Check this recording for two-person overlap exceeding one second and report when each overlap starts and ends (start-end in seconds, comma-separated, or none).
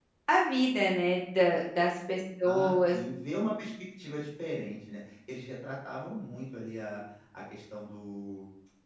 none